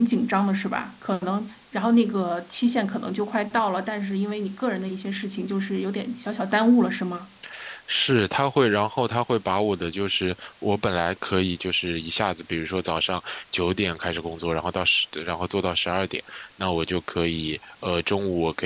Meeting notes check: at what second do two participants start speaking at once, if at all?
none

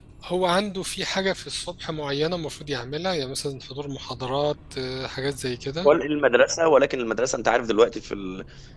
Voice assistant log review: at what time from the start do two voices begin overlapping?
none

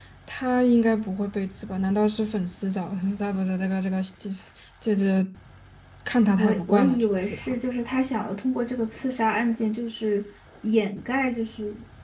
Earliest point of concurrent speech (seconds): 6 s

